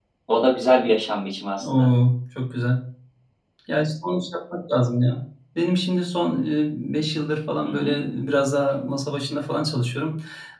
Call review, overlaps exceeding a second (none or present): none